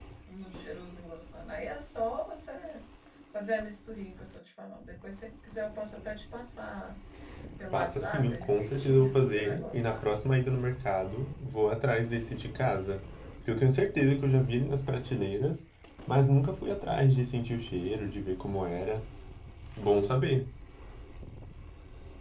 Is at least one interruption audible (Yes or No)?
Yes